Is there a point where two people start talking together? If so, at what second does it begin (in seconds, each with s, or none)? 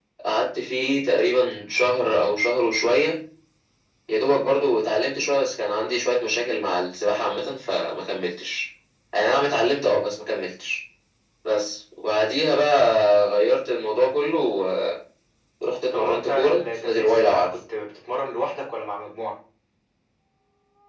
15.9 s